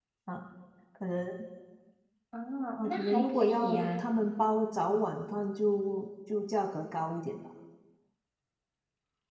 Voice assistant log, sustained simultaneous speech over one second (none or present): present